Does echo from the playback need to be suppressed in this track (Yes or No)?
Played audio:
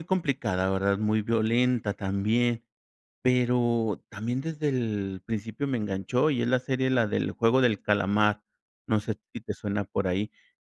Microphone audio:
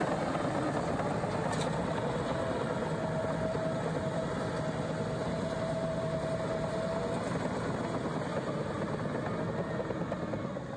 No